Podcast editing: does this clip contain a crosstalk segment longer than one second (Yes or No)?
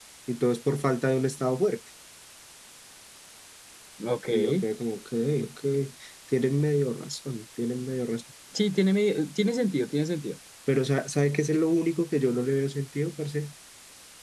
No